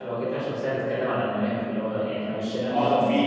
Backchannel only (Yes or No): No